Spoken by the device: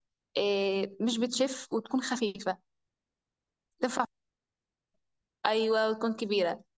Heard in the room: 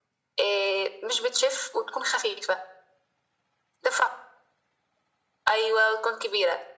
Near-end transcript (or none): none